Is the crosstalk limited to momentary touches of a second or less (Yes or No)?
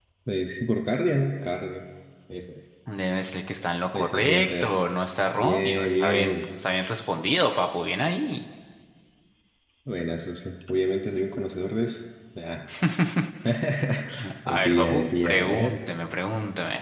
No